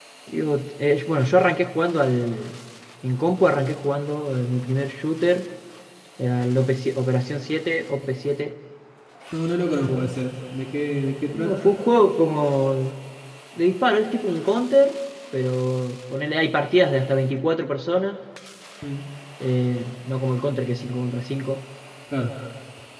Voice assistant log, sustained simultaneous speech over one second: none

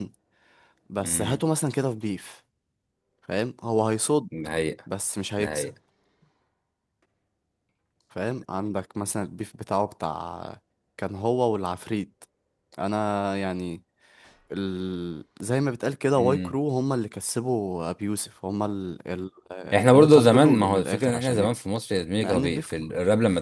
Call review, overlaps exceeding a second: present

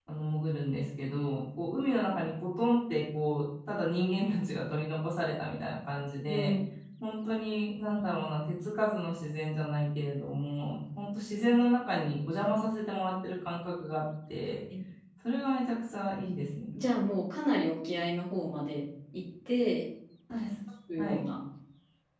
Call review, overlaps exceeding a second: none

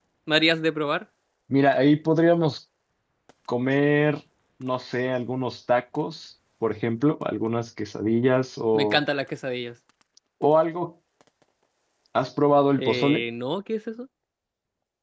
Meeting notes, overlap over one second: none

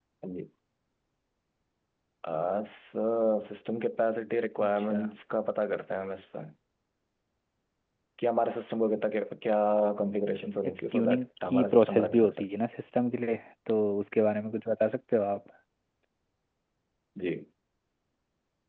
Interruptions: present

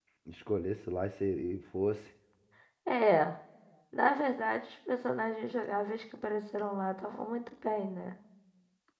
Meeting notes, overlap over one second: none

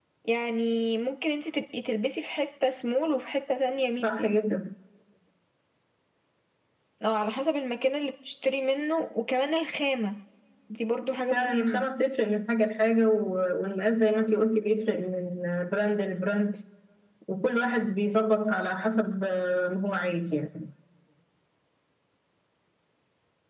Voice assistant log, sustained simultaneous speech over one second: none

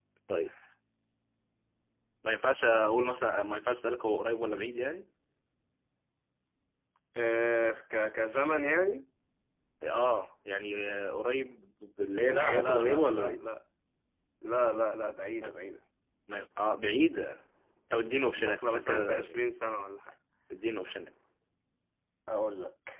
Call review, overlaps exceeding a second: present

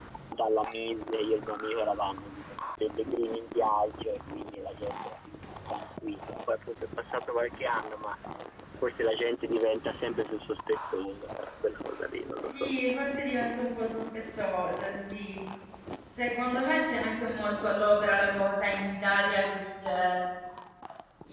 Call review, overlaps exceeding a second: none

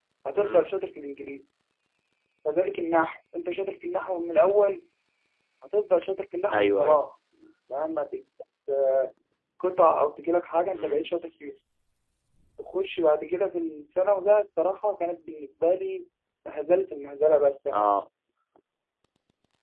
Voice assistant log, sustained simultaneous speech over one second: none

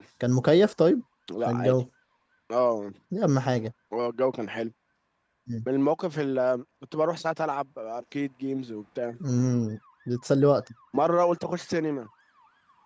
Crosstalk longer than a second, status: none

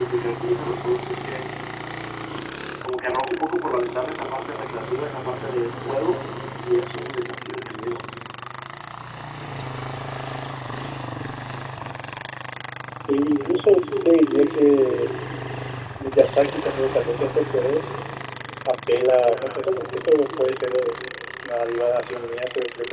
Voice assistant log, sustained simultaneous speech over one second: none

